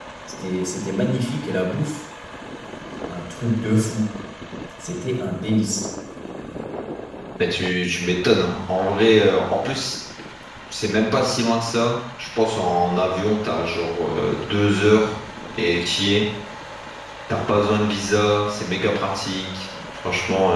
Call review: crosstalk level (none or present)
none